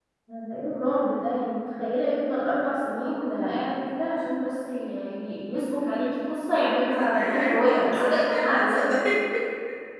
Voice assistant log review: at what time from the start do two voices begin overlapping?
7 s

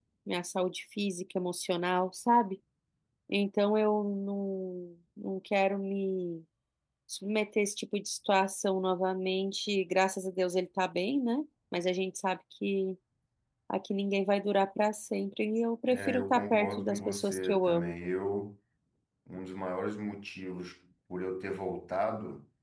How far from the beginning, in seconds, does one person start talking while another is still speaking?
16 s

